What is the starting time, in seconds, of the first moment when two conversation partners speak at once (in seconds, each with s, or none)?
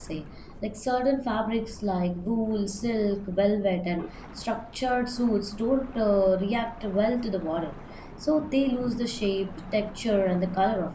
none